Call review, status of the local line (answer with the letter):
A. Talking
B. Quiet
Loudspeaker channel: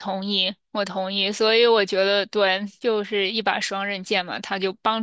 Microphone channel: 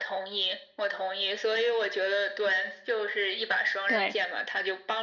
A